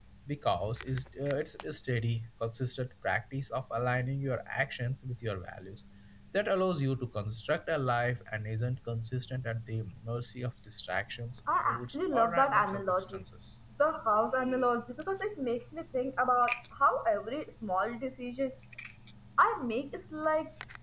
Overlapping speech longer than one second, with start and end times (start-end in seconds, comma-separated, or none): 11.6-13.0